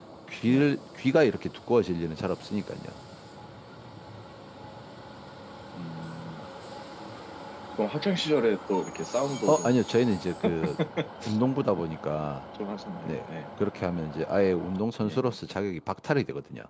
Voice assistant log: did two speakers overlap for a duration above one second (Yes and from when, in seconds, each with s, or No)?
No